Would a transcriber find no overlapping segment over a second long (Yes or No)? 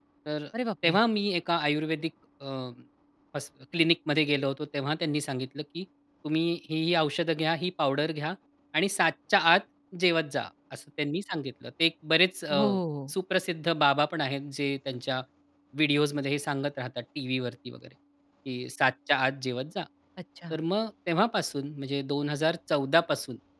Yes